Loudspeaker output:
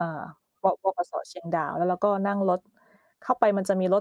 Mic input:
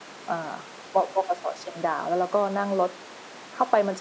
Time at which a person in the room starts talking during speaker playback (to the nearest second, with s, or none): none